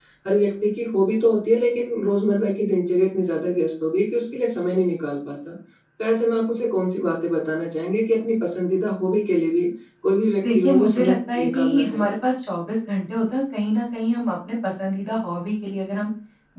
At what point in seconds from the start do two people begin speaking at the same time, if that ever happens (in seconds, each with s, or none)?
10.4 s